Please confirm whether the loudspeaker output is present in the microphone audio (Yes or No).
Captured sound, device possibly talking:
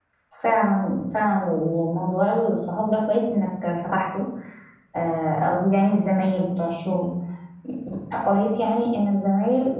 No